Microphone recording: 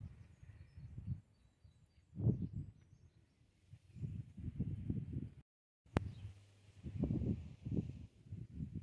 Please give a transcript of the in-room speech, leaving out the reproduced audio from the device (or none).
none